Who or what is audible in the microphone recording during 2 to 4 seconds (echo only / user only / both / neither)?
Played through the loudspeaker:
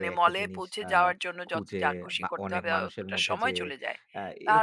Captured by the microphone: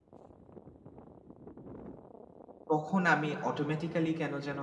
user only